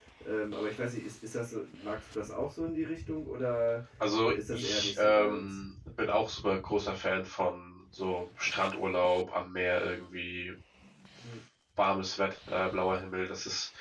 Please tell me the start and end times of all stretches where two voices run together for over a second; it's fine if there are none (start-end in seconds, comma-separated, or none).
4.3-5.6